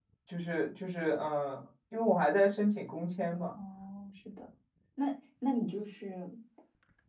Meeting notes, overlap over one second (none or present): none